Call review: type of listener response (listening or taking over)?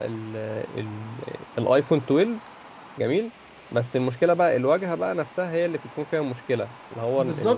taking over